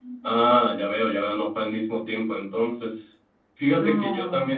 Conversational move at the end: listening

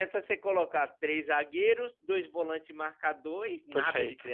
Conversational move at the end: taking over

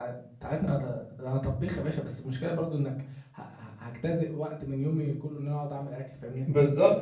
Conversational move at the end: taking over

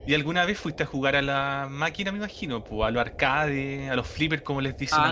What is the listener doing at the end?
taking over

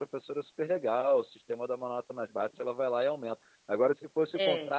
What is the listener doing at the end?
listening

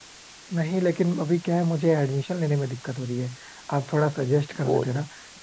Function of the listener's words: listening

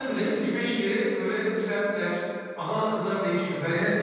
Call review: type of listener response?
taking over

